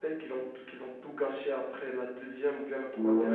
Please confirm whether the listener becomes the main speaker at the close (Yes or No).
Yes